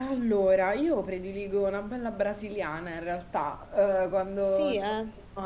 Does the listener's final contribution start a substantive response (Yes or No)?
No